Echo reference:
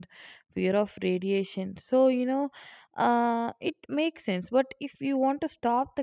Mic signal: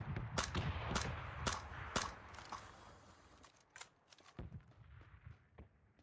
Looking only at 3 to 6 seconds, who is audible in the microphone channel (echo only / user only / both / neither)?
neither